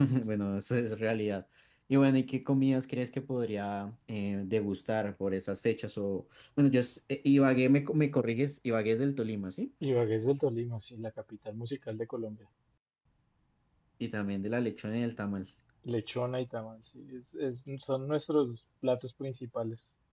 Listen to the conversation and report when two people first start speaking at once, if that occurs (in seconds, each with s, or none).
none